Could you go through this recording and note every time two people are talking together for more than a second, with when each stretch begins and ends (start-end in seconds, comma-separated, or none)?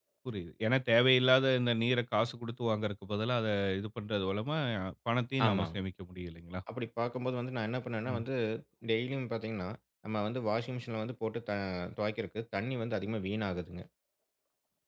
none